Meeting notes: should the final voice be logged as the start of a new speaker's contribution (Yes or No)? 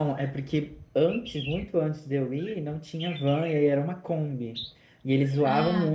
No